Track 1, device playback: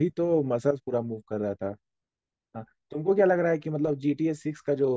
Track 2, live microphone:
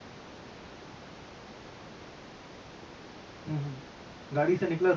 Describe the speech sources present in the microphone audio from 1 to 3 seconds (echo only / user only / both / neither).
neither